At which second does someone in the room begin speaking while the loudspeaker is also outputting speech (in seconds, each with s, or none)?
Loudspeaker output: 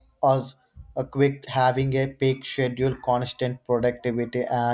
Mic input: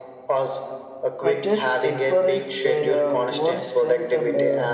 1.2 s